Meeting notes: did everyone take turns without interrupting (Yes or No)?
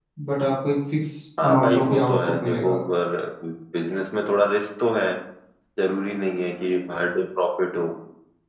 No